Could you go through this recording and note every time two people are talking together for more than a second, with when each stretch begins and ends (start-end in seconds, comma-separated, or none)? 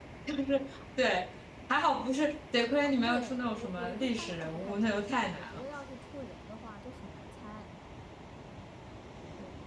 2.8-5.6